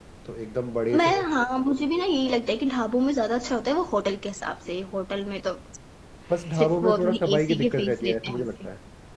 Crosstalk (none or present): present